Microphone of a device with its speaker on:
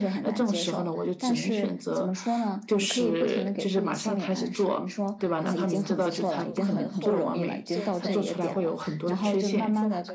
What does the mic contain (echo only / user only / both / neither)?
both